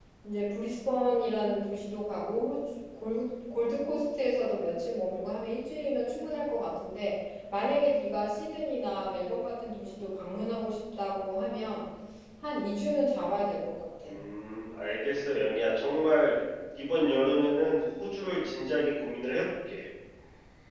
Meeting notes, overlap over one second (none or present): none